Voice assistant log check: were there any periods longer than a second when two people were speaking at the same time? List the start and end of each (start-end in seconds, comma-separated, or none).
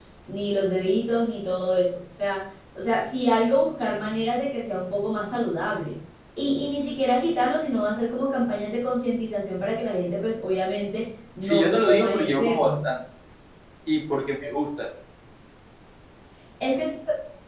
11.4-12.7